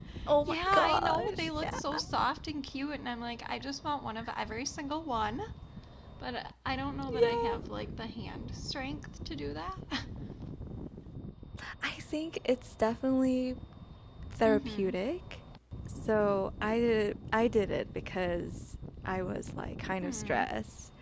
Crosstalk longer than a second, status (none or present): present